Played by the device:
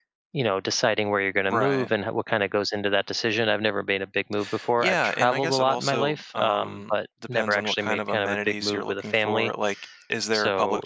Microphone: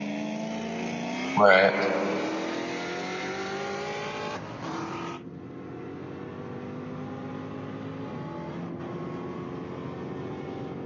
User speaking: Yes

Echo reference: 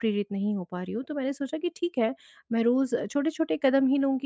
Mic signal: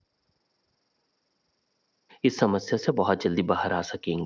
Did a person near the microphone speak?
Yes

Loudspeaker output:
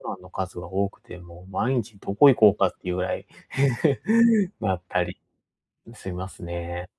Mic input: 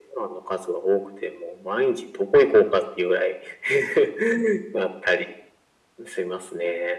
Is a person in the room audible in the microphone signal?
No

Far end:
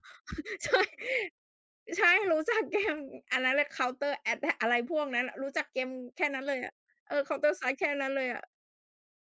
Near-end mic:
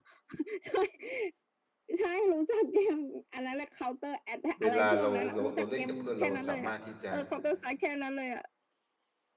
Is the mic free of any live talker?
No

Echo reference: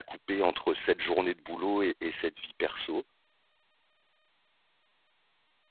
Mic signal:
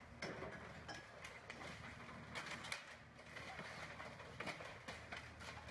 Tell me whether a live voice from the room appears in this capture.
No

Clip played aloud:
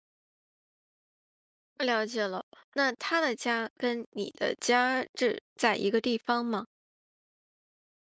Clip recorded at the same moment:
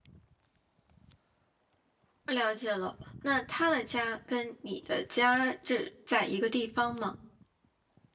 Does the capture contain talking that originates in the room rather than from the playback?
No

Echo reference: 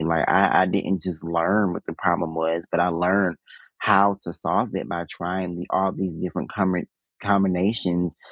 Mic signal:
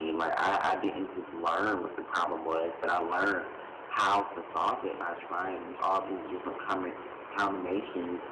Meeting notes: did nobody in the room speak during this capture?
Yes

